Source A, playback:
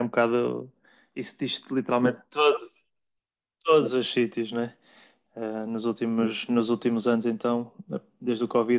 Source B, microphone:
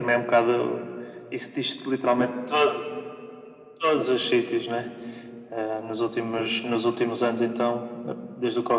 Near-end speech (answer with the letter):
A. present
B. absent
B